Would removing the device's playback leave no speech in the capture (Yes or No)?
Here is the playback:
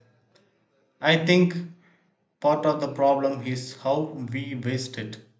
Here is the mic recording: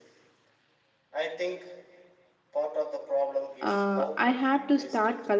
No